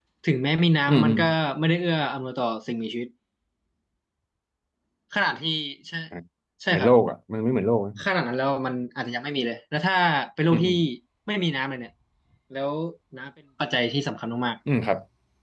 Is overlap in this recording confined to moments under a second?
Yes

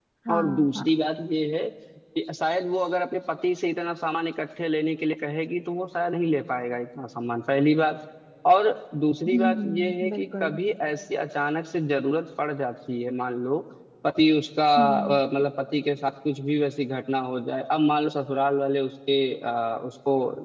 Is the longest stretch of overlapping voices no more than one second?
No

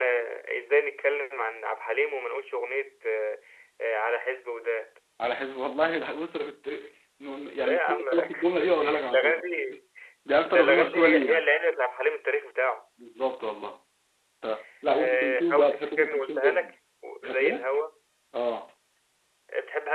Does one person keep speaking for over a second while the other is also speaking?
Yes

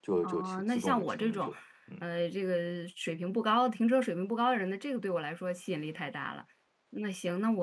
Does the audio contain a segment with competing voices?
Yes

